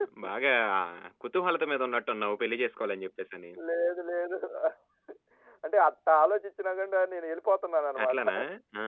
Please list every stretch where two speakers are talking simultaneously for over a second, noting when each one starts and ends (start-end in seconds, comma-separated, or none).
none